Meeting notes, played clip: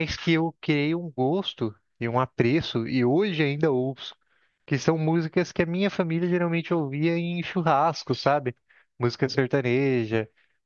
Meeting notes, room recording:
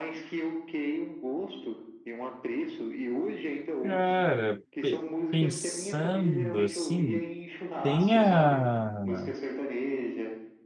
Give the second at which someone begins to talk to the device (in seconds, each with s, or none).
3.8 s